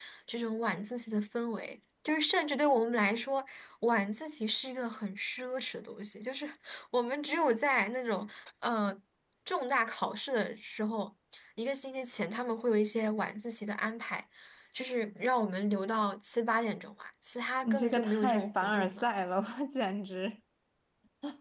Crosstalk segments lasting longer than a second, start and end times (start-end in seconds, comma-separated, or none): 17.6-19.1